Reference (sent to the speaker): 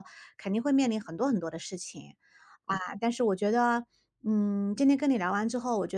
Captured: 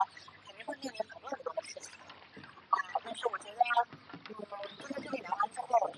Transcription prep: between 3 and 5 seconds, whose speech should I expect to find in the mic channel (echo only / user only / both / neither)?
echo only